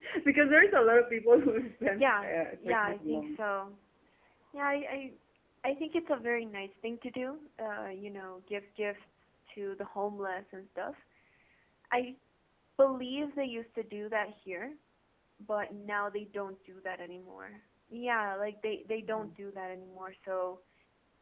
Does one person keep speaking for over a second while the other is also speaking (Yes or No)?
Yes